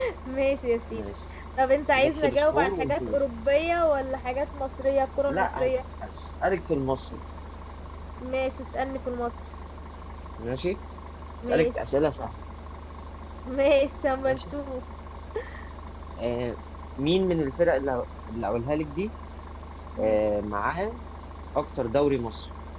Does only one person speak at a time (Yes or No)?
No